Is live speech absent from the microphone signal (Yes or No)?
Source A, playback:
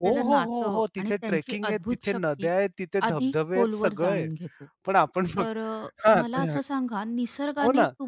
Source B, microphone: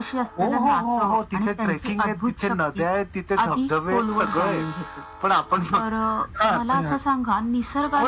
Yes